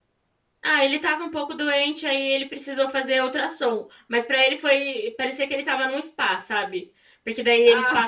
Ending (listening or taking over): listening